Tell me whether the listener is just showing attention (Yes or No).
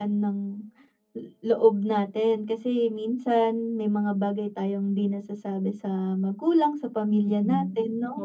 No